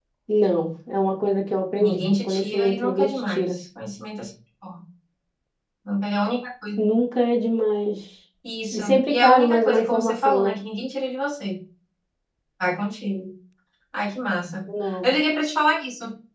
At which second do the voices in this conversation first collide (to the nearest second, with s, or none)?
2 s